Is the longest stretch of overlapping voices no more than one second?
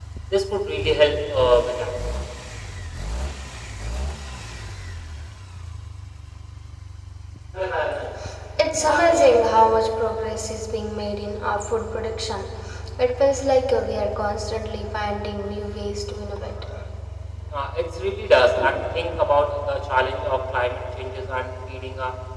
Yes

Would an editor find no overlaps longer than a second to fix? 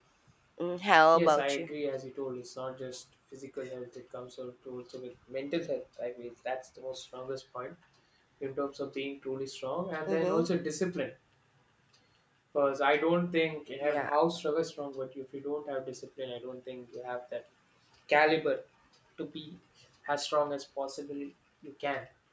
Yes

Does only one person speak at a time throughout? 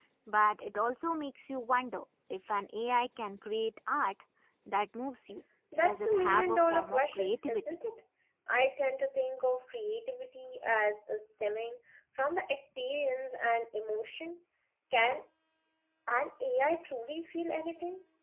No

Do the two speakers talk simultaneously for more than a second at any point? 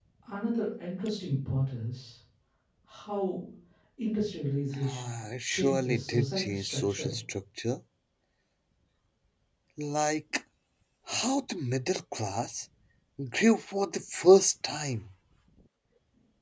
Yes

